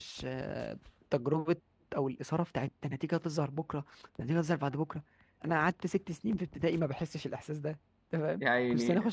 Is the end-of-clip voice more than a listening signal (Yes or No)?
No